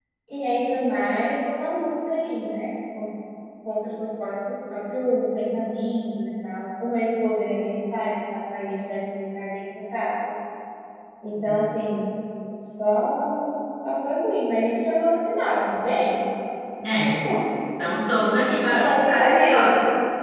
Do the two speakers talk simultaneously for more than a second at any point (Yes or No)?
Yes